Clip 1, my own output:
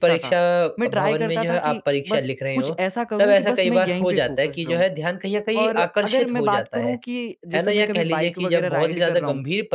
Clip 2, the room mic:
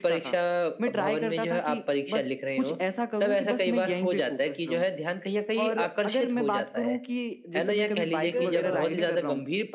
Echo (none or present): present